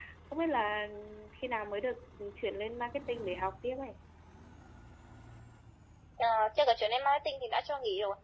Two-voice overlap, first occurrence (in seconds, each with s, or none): none